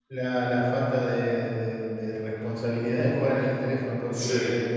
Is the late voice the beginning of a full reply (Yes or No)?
No